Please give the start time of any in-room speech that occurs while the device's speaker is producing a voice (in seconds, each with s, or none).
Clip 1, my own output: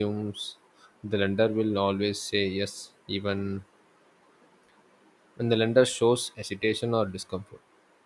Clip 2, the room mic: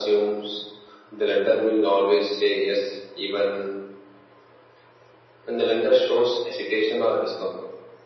none